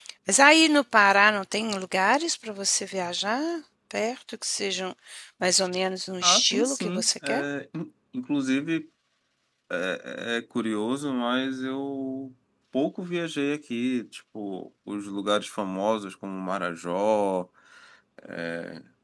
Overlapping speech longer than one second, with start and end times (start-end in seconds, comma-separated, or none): 6.2-7.4